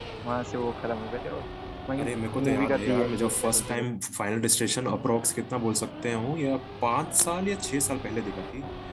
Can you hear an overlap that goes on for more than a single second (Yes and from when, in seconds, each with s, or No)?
Yes, from 2.4 s